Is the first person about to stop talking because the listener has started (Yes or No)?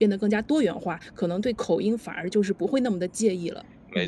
Yes